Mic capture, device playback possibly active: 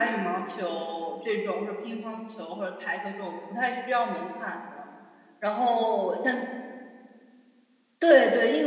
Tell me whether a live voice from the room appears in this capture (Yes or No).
No